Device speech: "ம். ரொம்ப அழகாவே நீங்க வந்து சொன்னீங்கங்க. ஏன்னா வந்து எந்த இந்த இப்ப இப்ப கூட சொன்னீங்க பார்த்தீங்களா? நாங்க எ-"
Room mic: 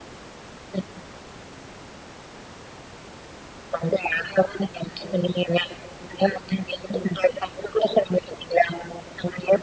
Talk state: echo only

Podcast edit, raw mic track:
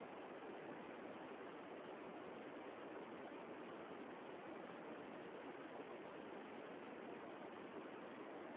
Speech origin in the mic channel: neither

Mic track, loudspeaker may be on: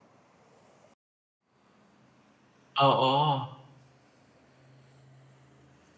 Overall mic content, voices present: user only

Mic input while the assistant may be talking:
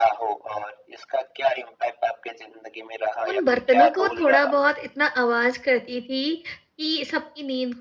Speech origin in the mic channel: both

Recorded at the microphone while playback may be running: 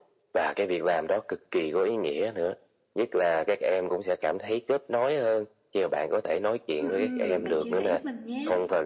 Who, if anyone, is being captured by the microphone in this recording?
both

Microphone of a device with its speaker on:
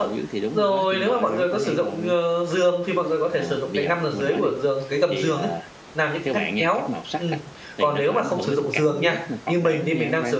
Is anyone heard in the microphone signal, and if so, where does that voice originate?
both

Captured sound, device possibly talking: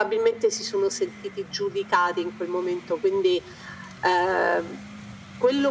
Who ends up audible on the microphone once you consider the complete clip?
echo only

